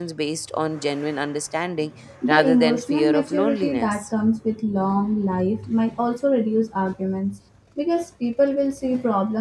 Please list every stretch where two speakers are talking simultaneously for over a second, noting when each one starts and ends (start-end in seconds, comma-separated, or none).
2.3-4.0